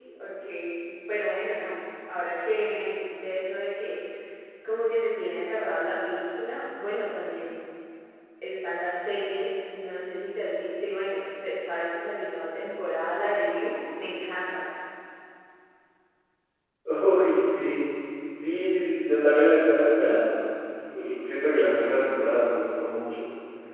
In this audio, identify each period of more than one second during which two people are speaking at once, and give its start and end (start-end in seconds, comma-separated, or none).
none